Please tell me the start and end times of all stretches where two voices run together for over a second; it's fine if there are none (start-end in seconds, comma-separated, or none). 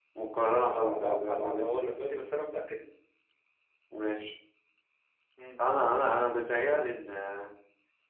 0.5-1.9